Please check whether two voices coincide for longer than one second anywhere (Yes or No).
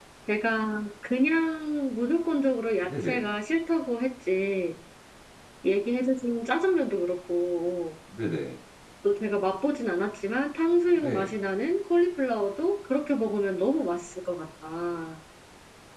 No